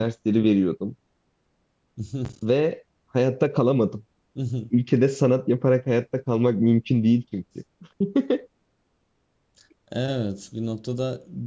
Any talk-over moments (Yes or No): No